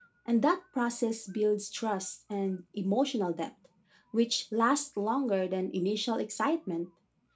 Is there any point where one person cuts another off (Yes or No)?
No